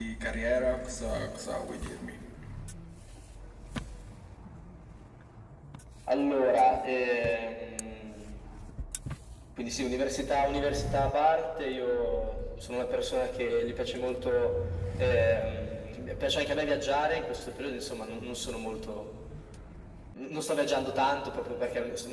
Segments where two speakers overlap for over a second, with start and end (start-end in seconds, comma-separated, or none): none